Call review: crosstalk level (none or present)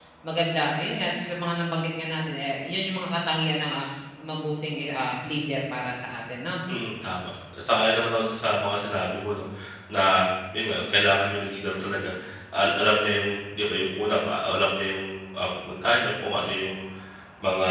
none